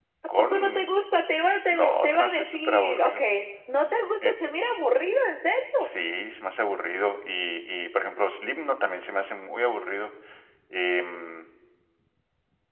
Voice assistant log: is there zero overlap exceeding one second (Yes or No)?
No